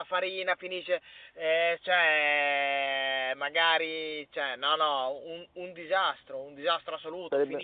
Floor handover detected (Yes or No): No